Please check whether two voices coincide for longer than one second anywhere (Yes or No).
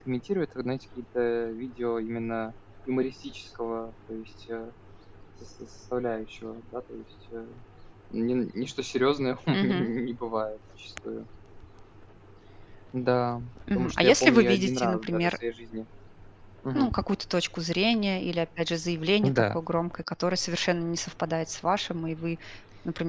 Yes